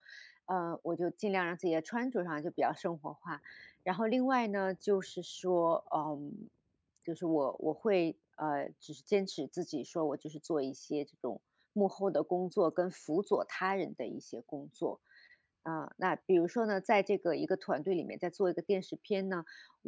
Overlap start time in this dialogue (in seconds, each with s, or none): none